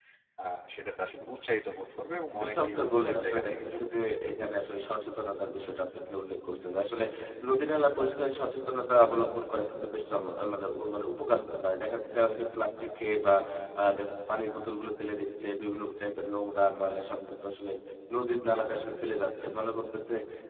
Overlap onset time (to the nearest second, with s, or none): 2 s